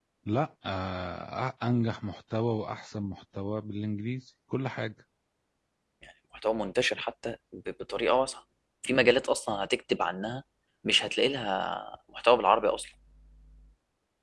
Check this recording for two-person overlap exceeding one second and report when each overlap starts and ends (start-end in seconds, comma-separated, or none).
none